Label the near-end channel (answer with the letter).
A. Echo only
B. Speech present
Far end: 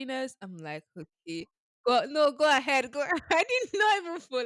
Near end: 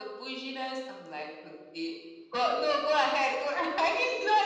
A